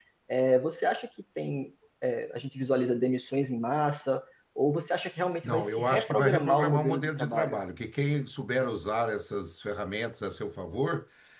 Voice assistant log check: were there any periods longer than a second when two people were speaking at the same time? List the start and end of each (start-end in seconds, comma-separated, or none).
5.4-7.6